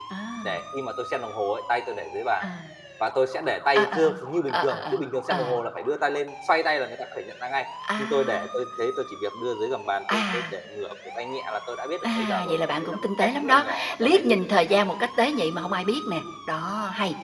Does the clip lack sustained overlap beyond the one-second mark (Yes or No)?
No